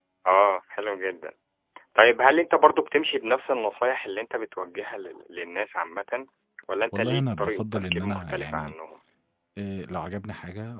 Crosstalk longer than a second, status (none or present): present